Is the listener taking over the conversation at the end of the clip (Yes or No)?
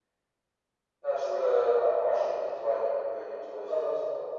Yes